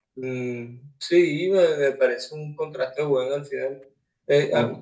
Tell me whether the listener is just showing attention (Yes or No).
Yes